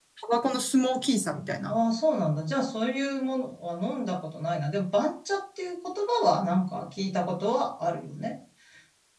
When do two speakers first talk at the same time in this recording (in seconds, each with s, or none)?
none